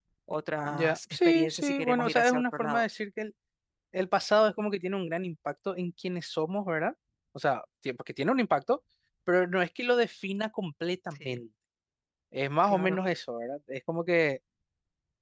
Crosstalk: present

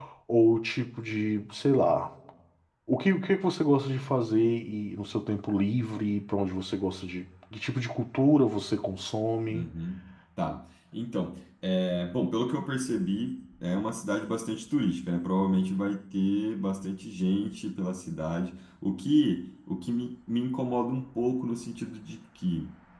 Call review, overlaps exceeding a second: none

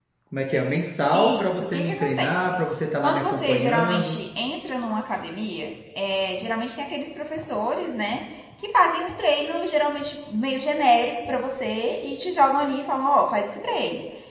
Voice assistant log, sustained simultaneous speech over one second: present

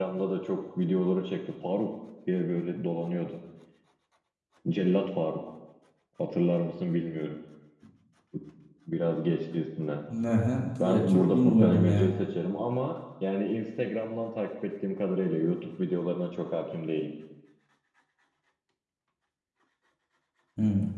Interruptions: present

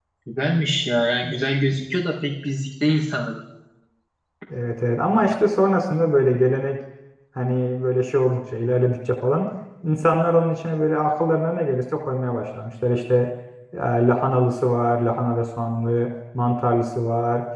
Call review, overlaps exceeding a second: none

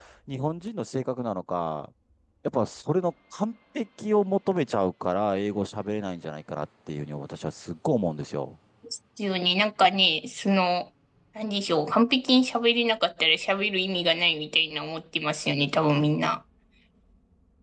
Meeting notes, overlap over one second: none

